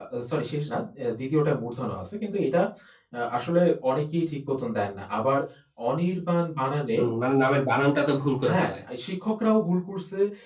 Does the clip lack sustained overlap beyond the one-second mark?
Yes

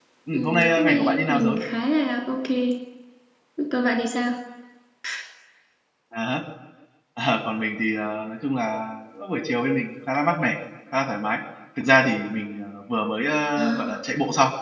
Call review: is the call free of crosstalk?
No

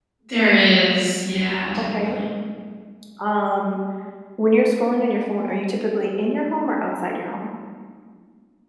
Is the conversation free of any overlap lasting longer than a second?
Yes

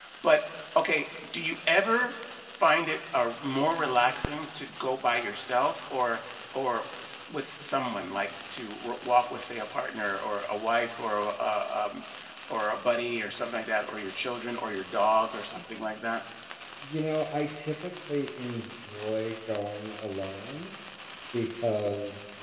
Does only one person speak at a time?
Yes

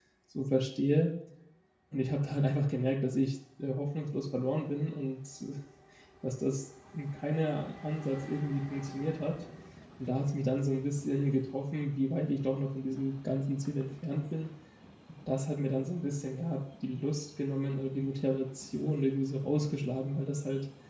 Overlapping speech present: No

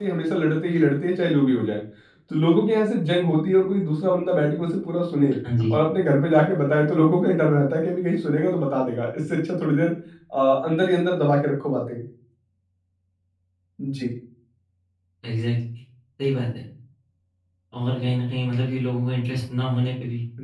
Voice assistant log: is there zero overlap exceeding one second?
Yes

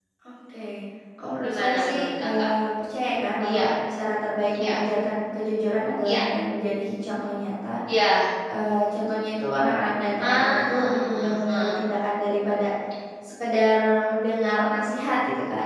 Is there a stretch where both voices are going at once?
Yes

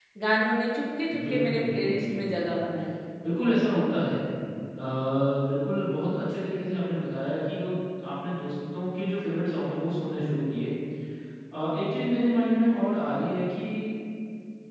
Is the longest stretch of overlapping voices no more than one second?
No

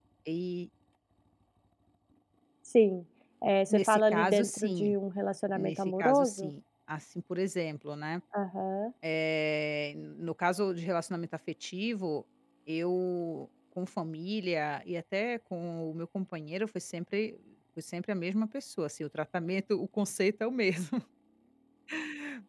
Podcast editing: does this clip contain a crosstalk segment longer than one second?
Yes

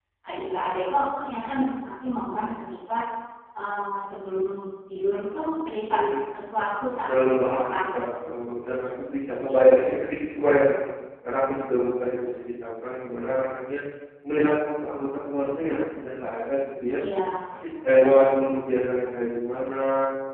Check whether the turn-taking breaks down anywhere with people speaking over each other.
Yes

